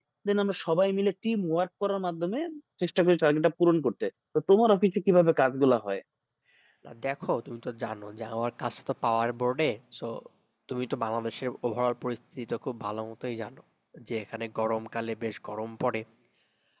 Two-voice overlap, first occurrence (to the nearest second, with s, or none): none